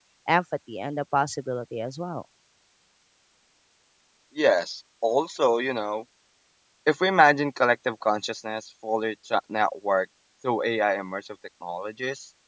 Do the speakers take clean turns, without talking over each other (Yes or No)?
Yes